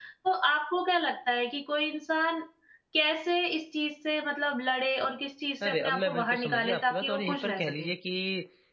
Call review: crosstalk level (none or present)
present